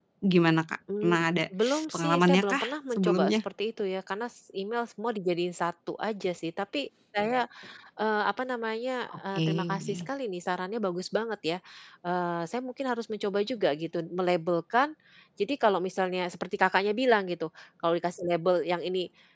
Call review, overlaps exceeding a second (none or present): present